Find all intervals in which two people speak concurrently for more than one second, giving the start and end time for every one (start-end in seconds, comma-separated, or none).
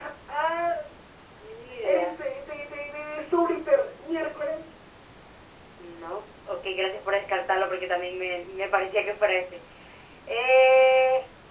none